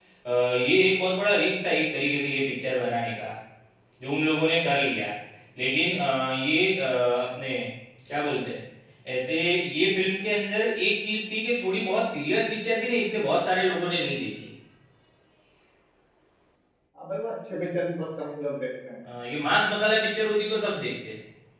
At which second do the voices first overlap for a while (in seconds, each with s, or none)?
none